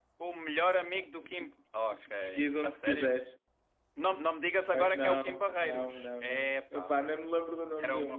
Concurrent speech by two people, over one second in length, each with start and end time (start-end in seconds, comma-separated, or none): 1.9-3.1, 4.7-6.9